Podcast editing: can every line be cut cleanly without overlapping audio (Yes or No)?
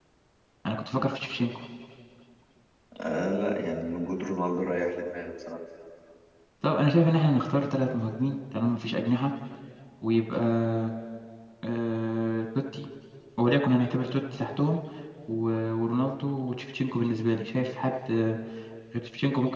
Yes